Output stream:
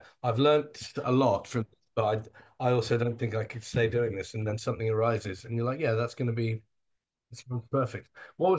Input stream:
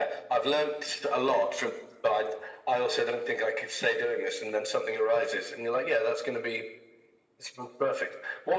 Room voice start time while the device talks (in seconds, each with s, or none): none